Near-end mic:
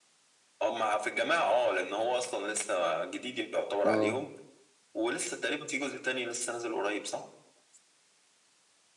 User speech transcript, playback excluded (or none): اه